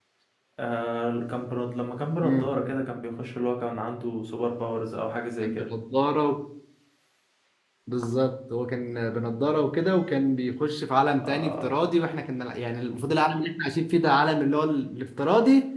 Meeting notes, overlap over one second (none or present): none